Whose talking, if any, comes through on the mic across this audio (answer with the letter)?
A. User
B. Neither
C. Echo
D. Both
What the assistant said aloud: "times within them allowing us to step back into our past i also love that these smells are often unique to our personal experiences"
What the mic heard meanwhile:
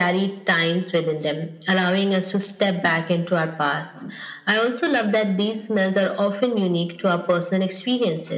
C